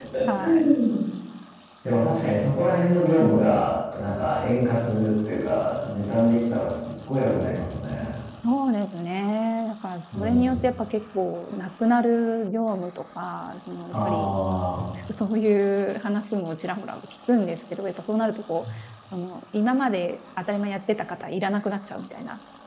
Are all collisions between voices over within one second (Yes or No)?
Yes